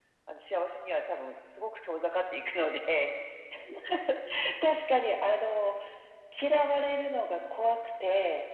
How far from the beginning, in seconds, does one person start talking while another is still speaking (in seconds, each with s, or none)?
none